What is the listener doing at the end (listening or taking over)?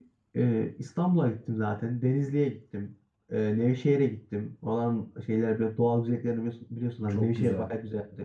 listening